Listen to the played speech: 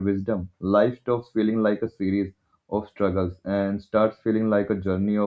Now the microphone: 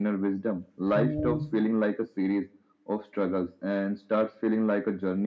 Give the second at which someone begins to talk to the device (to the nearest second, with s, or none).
1 s